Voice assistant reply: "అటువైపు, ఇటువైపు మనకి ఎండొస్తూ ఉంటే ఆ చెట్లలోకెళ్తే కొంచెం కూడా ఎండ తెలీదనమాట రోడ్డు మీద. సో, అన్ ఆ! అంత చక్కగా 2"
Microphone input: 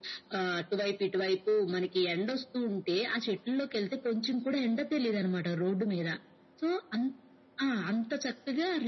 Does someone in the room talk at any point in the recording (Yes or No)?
No